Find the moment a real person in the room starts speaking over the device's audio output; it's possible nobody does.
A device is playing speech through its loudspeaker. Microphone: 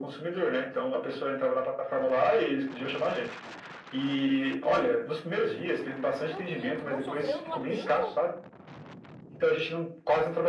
6.2 s

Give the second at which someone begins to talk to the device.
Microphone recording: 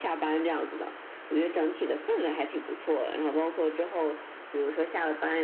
none

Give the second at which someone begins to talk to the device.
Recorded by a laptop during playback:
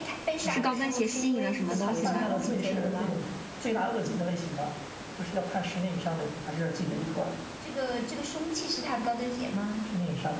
0.4 s

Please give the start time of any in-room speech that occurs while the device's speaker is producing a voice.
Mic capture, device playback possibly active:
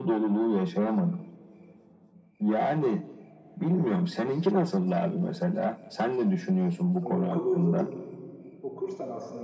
7.0 s

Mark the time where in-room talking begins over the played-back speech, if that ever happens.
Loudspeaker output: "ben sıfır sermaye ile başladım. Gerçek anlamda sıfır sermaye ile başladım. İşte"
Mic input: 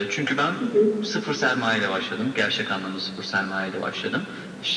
0.6 s

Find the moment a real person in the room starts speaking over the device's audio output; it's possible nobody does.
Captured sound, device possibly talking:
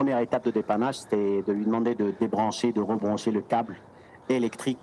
none

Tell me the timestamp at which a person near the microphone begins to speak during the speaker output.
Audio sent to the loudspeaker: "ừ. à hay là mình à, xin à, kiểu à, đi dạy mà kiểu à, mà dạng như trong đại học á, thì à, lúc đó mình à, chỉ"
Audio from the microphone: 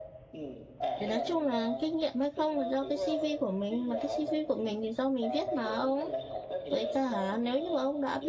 1.0 s

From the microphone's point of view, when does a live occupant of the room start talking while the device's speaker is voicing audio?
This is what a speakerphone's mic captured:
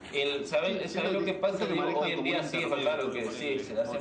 none

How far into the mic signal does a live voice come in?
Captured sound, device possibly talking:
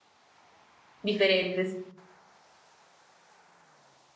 1.0 s

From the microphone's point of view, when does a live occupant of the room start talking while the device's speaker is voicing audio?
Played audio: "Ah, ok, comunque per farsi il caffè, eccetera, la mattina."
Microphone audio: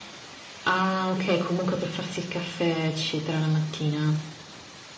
none

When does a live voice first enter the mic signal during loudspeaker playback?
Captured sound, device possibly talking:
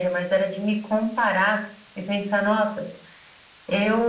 none

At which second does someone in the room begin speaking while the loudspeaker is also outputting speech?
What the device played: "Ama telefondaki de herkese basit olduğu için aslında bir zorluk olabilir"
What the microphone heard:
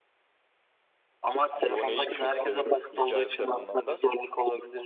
1.6 s

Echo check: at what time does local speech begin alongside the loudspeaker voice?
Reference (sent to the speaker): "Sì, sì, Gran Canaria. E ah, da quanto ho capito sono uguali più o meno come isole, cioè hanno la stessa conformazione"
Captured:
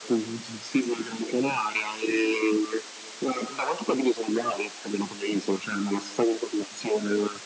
none

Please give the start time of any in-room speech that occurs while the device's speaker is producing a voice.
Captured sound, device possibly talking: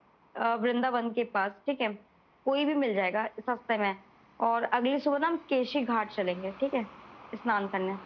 none

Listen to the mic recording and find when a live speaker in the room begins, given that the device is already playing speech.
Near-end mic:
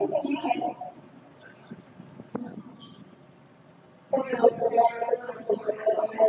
none

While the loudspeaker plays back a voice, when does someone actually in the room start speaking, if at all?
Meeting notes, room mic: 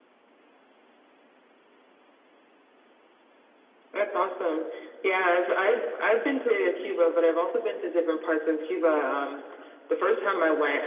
none

